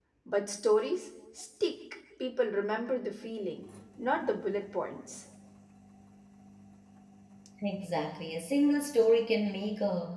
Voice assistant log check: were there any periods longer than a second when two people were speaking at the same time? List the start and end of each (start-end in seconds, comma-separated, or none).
none